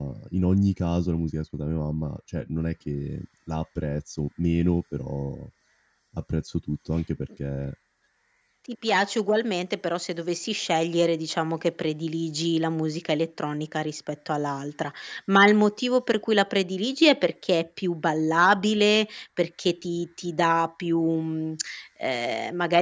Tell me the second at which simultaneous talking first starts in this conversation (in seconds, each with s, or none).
none